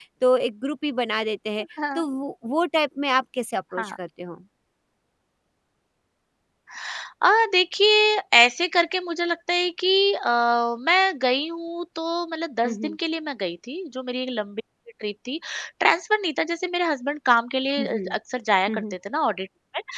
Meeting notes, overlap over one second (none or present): none